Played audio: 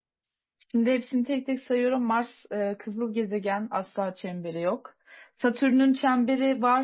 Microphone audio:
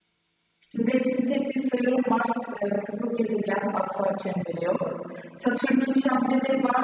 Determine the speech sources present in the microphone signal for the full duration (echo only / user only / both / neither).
echo only